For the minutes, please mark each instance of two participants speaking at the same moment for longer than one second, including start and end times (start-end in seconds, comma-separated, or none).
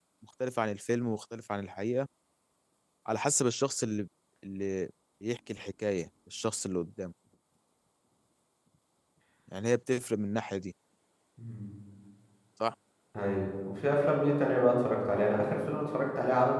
none